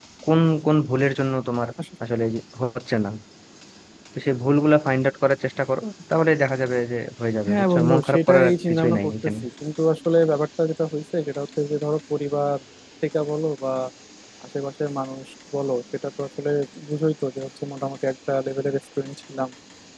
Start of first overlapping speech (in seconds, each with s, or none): 7.5 s